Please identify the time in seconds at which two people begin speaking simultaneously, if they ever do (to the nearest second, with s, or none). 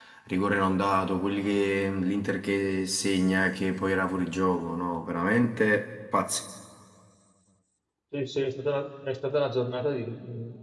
none